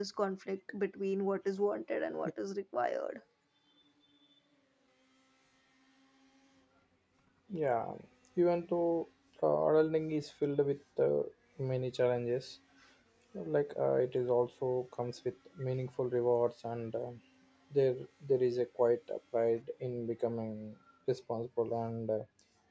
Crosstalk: none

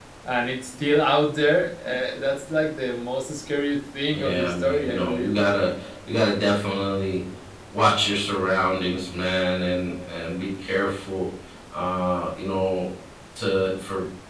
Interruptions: present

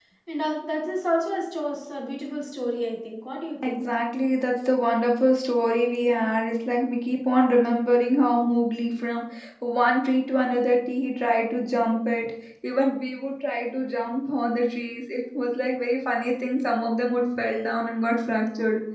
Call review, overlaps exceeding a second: none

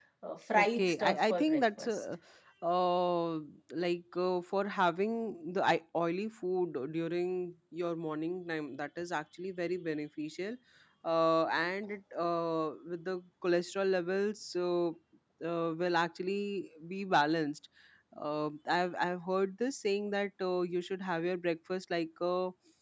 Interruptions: present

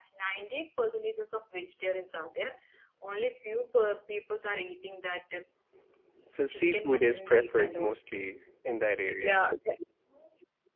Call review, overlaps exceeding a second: present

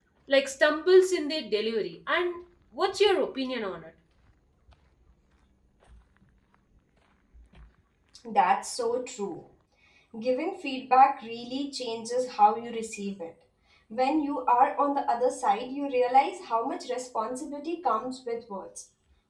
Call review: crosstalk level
none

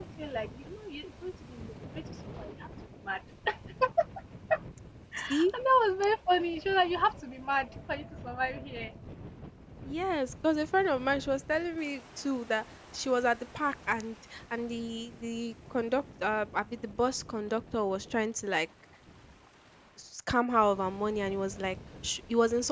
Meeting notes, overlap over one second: none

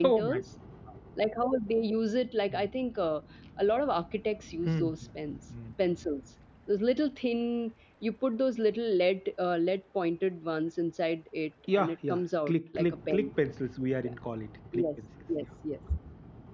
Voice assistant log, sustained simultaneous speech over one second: present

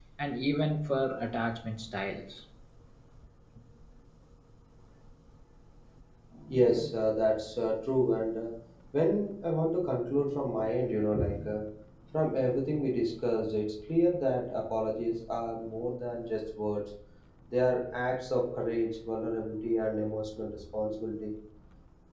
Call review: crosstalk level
none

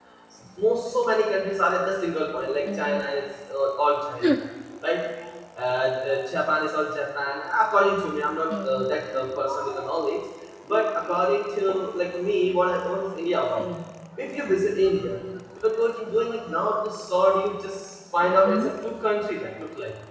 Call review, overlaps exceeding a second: none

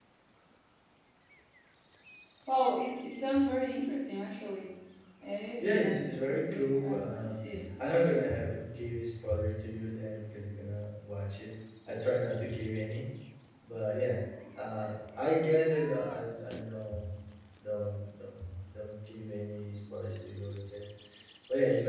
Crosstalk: present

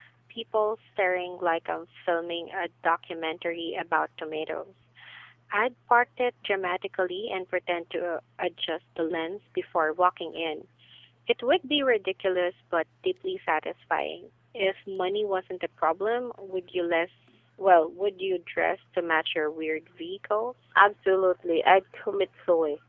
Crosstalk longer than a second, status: none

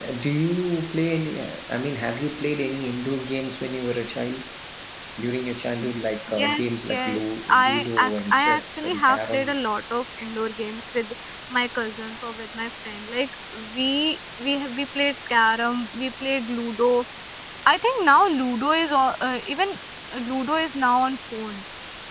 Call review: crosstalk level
present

